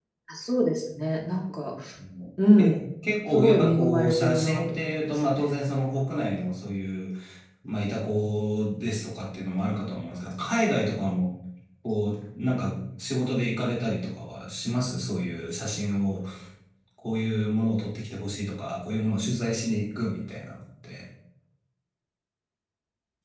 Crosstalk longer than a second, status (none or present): present